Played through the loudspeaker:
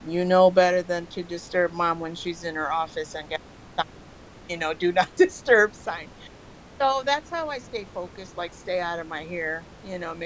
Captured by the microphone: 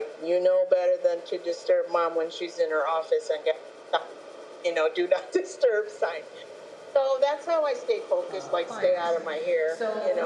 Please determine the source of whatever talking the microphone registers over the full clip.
both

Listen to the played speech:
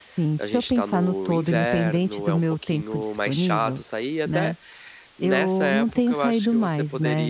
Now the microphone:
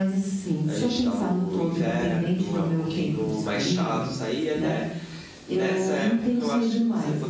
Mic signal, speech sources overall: echo only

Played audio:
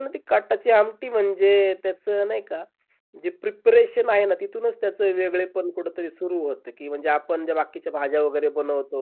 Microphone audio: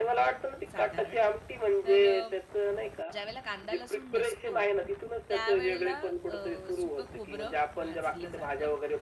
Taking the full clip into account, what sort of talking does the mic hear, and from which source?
both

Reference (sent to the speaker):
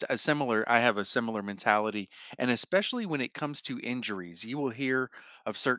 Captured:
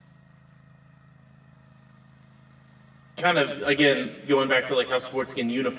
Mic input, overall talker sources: user only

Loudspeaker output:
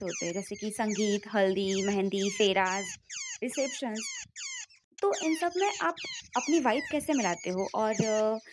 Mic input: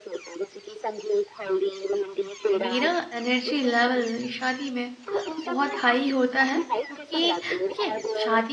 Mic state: both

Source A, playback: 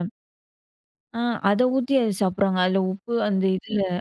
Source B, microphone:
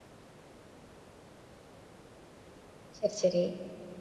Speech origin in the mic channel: user only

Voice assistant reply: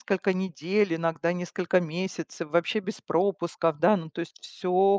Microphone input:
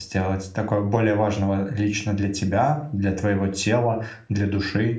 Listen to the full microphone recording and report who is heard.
user only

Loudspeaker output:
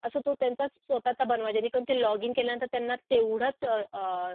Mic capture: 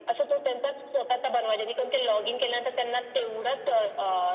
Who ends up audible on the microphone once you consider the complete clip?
echo only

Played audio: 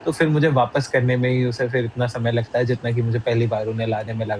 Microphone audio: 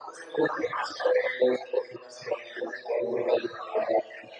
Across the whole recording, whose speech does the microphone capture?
echo only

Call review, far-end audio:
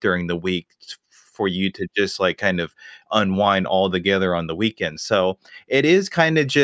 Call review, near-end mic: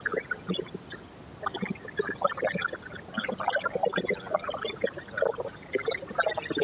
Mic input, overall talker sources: echo only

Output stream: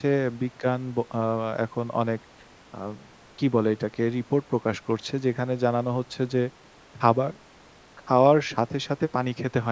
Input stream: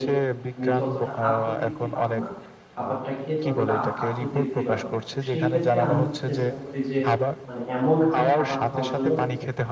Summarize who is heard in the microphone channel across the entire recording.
both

